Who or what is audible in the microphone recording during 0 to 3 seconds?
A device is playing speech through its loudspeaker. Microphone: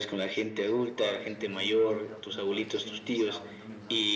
both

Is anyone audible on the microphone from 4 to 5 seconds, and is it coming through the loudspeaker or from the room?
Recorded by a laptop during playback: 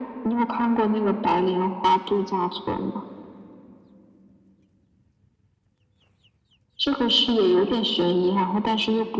neither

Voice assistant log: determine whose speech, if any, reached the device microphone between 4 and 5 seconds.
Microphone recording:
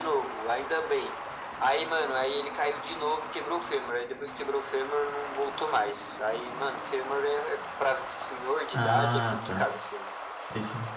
echo only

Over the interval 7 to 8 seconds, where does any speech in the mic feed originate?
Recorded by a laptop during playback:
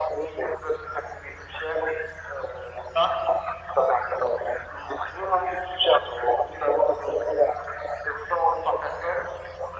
echo only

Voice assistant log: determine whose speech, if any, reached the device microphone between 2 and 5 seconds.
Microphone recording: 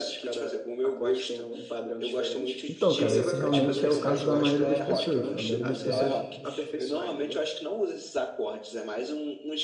both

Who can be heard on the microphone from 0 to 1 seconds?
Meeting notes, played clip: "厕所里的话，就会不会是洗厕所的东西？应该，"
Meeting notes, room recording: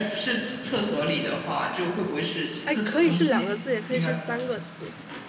echo only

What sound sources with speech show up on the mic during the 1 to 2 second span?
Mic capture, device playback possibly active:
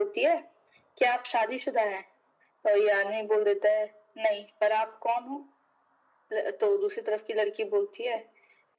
echo only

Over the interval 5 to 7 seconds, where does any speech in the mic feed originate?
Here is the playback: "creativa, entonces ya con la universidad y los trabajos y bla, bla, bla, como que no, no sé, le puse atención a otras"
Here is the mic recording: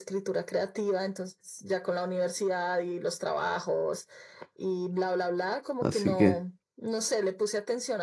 both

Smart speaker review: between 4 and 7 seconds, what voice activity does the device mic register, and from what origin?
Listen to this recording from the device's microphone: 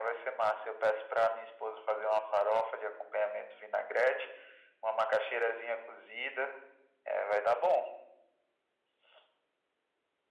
echo only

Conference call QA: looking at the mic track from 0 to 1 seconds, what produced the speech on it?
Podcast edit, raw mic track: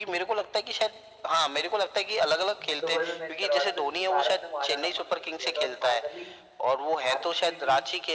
echo only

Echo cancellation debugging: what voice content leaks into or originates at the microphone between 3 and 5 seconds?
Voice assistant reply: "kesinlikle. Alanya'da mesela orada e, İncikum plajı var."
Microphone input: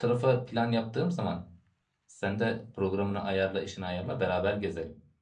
user only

